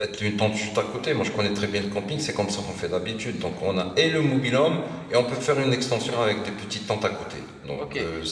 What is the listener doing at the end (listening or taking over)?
taking over